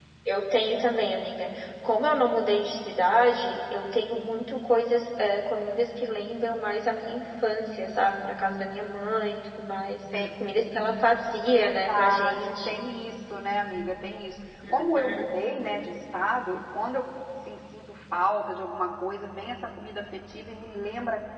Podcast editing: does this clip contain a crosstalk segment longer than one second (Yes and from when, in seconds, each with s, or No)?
Yes, from 11.5 s